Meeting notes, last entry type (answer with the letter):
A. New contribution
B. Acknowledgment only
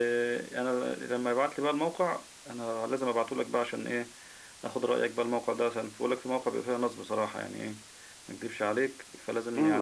A